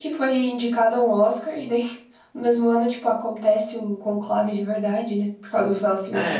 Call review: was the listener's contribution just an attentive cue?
Yes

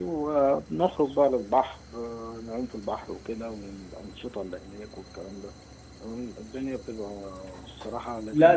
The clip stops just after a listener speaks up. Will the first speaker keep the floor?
No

